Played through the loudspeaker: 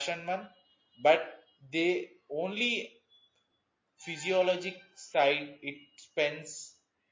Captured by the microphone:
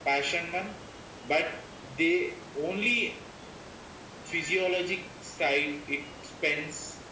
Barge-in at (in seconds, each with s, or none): none